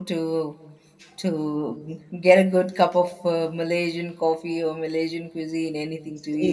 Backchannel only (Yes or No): No